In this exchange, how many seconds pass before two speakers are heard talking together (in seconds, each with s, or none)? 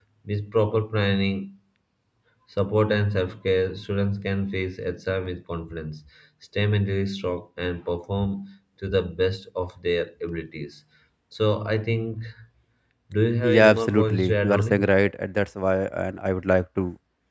13.5 s